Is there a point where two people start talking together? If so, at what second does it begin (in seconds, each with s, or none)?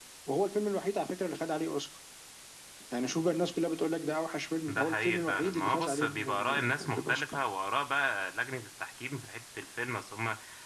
4.7 s